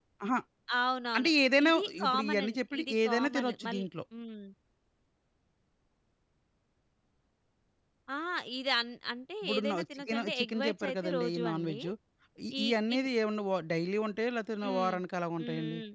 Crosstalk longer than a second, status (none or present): present